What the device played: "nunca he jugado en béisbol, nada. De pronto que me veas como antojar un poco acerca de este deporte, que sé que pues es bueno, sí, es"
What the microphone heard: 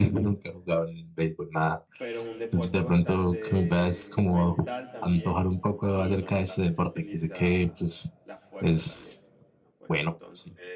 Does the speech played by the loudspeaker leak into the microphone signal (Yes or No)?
Yes